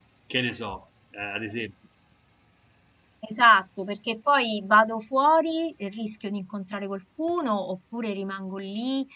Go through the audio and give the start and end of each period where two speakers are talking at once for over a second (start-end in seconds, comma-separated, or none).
none